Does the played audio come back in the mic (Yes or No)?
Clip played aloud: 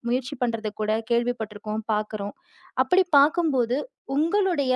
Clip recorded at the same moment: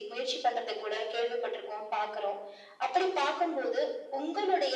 Yes